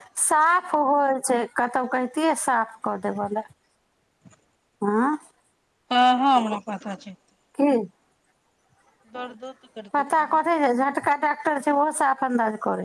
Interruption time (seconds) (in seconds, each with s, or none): none